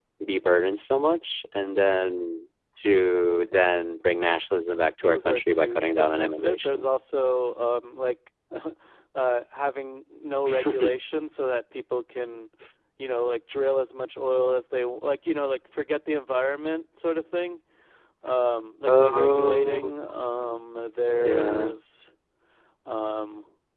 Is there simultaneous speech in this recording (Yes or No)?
Yes